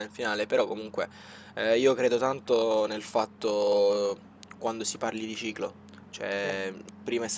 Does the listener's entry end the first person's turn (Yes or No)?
No